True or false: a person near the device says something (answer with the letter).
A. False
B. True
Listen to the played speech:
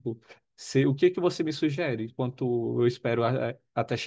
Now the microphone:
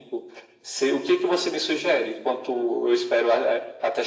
A